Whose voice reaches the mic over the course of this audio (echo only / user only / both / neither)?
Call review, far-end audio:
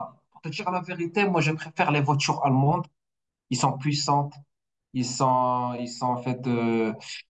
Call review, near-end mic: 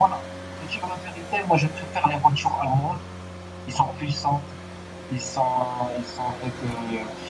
echo only